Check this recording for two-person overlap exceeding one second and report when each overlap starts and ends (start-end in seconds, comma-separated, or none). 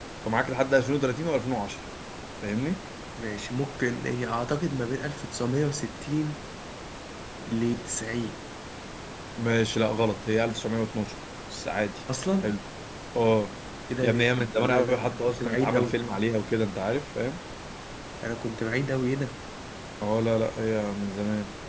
14.0-16.0